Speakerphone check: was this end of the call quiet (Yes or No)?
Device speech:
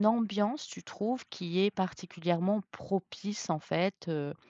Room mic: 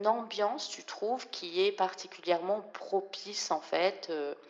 Yes